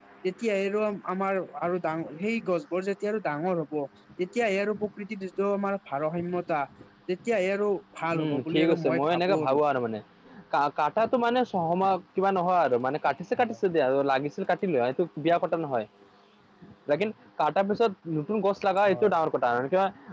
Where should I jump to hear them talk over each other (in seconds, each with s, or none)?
8.1 s